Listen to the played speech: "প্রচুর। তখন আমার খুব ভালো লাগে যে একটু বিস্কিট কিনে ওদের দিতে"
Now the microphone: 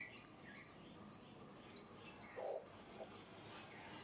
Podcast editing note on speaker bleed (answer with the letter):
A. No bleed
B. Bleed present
A